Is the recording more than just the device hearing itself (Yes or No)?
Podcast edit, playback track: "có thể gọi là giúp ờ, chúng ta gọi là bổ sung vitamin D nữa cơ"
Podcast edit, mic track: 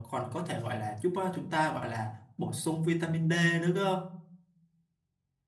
No